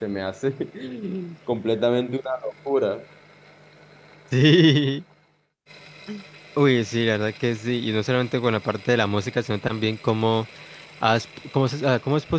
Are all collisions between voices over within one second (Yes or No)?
Yes